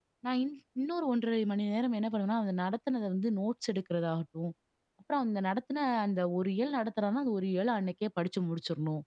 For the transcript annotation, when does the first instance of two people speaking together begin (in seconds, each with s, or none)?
none